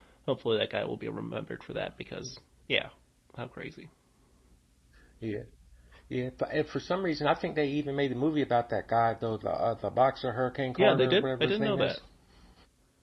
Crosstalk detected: Yes, from 10.8 s

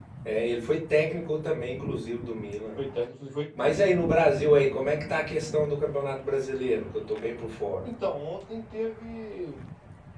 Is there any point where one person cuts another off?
No

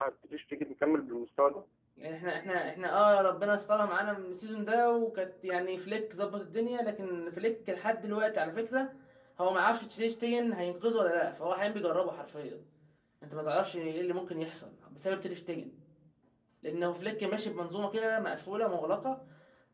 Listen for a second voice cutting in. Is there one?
No

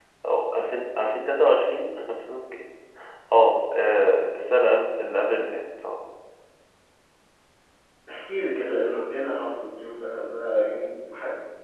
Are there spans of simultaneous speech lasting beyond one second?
No

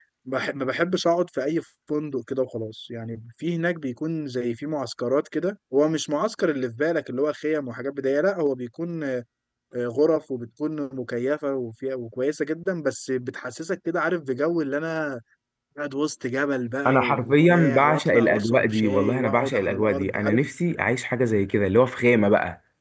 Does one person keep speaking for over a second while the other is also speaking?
Yes, from 16.9 s

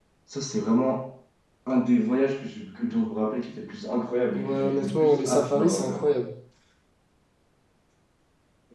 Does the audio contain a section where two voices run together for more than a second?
Yes, from 4.3 s

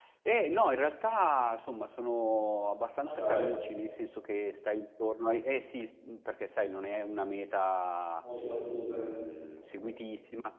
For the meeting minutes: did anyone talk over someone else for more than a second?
No

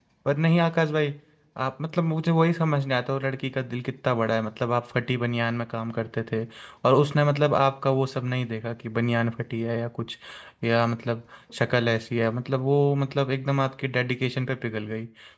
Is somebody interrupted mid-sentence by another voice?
No

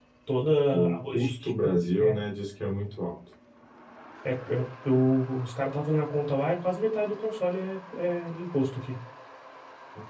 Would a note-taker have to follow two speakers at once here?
Yes, from 0.7 s

